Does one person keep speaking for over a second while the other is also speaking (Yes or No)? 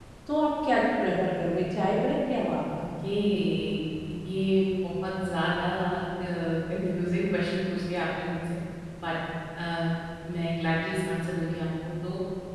No